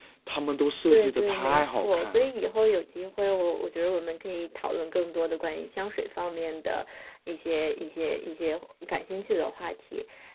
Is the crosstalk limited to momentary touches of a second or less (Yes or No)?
No